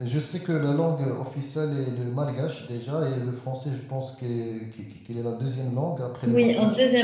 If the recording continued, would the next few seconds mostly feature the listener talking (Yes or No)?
Yes